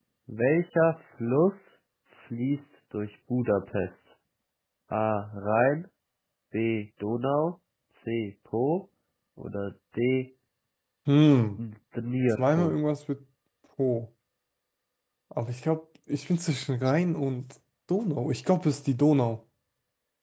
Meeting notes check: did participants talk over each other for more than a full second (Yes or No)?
No